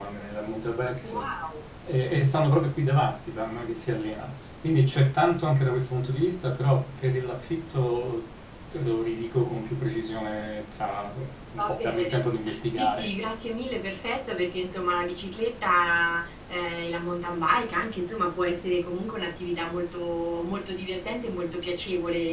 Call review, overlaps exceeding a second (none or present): present